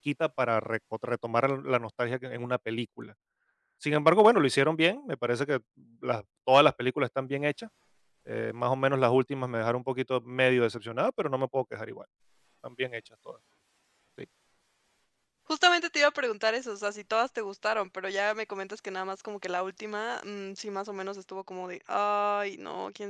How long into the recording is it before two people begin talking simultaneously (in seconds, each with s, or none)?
none